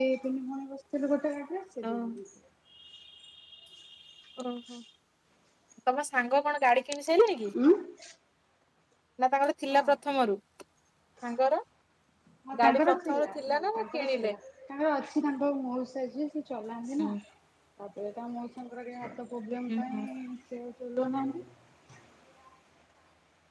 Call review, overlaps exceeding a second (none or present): present